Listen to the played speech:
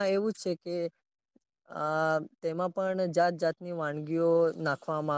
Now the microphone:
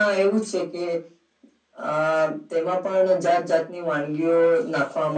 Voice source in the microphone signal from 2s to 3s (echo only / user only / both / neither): echo only